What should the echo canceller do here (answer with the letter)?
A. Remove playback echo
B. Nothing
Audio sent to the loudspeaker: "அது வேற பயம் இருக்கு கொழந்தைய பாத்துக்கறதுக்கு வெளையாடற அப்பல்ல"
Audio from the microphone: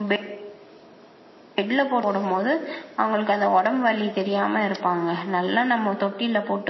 B